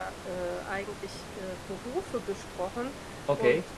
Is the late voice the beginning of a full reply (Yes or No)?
No